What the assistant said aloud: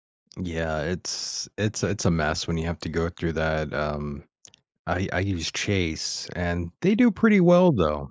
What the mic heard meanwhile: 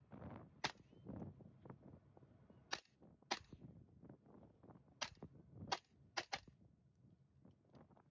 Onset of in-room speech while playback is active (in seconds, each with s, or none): none